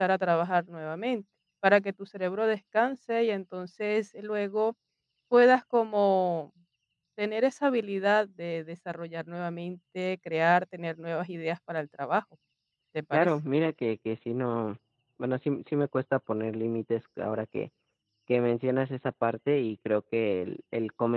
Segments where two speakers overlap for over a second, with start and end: none

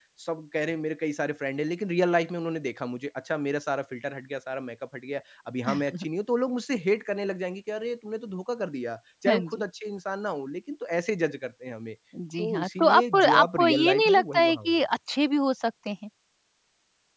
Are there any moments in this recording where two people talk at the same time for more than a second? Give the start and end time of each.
12.4-14.8

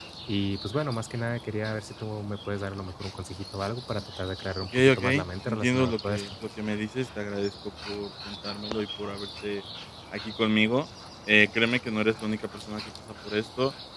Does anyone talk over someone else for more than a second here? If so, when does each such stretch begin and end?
4.8-6.3

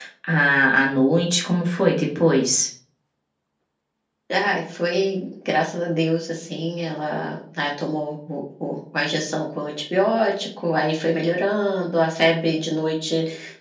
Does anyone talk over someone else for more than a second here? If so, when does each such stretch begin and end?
none

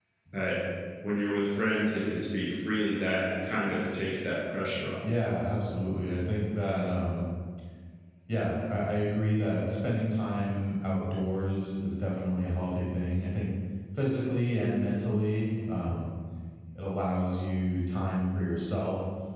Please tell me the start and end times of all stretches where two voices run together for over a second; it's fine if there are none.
none

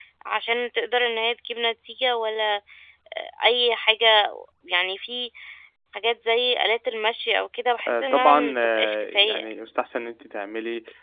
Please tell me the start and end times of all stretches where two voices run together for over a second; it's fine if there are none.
7.9-9.5

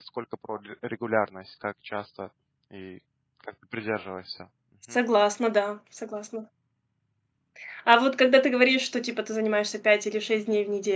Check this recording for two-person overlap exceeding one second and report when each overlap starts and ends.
none

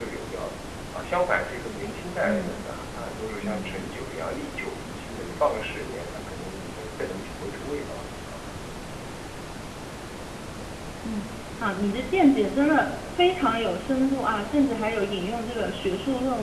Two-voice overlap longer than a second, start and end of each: none

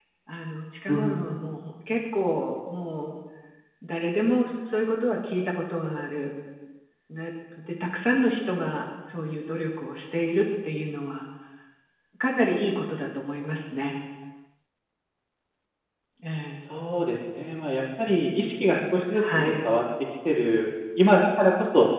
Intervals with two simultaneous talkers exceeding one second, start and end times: none

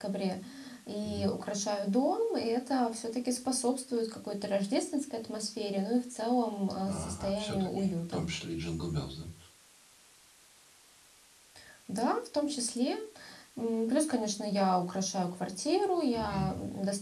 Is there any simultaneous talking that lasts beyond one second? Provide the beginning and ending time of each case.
6.8-8.3

